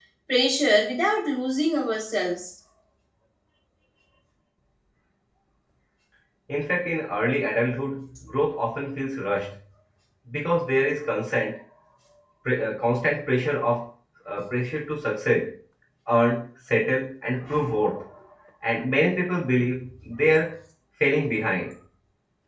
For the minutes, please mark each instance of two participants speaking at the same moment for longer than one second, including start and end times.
none

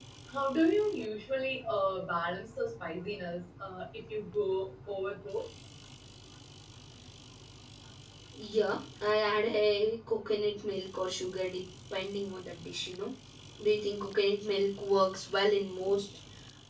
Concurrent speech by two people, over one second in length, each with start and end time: none

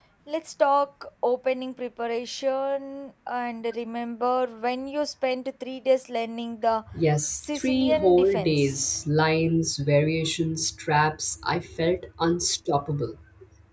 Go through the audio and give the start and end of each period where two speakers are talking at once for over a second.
7.4-8.9

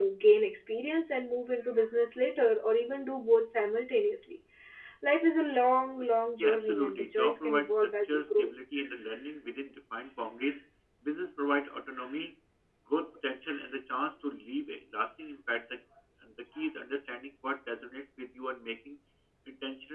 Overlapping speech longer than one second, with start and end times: 6.4-8.5

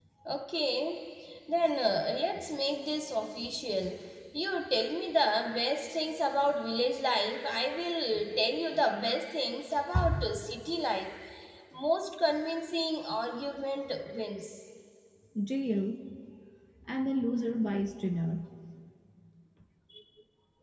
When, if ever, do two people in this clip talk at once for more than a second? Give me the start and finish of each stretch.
none

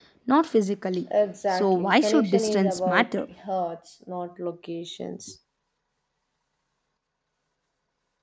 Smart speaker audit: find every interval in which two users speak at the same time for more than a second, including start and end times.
1.5-3.1

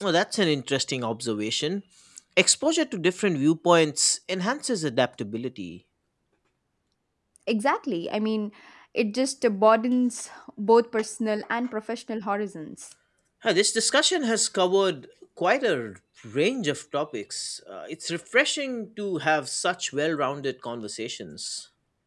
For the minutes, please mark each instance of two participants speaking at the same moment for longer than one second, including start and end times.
none

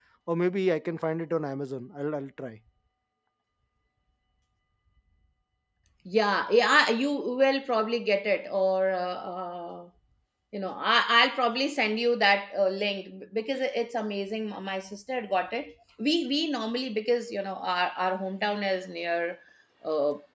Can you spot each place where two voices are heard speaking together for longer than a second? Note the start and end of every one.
none

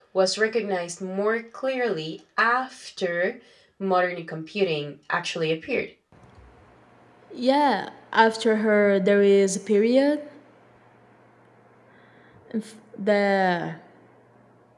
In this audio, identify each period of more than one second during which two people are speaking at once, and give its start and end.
none

